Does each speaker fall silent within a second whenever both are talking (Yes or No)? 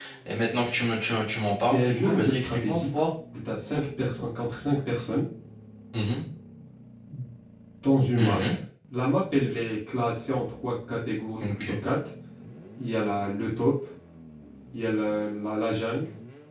No